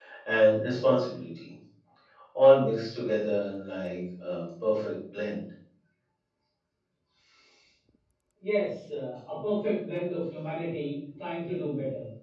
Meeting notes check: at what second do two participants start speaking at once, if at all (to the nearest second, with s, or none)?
none